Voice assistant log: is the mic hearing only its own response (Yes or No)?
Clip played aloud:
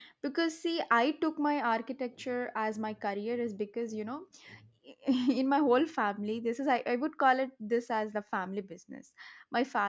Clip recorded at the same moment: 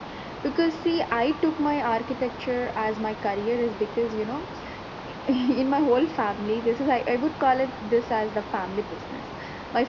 Yes